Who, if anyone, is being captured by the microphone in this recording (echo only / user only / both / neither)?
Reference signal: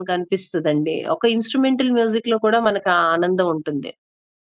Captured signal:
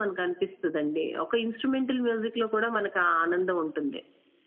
echo only